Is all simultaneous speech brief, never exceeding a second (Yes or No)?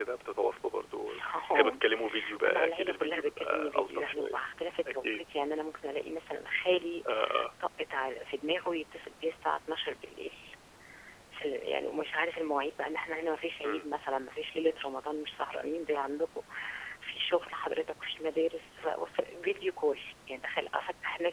No